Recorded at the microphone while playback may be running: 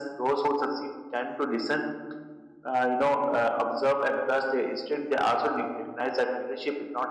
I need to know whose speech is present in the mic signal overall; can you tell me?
echo only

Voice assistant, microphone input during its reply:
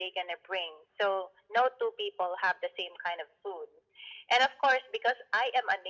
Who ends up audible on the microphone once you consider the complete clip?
echo only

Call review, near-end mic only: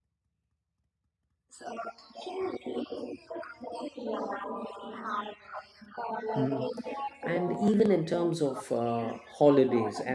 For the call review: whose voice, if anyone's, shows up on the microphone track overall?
both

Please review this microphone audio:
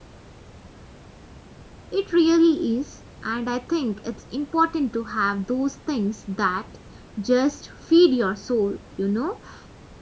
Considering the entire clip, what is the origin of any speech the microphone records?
user only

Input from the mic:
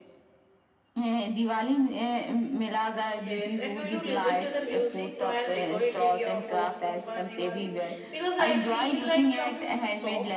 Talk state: both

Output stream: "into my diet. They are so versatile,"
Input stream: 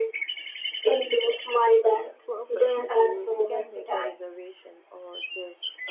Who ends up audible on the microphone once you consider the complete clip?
both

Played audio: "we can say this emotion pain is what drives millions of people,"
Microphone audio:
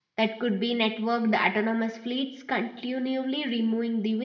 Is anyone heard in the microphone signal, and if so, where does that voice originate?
user only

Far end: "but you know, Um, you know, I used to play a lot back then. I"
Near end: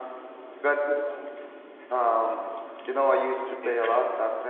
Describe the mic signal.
both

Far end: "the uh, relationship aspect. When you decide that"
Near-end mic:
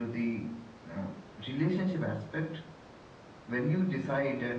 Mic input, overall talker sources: echo only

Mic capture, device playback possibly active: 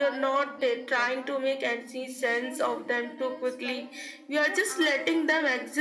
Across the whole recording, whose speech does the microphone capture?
both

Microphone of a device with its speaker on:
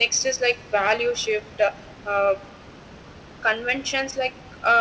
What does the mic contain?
echo only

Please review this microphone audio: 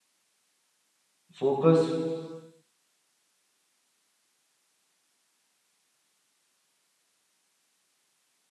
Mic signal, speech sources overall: user only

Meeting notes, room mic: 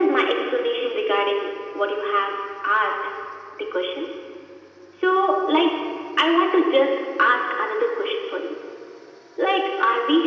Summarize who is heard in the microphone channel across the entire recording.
echo only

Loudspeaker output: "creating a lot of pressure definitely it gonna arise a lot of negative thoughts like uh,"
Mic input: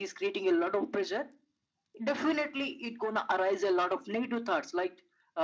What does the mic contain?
echo only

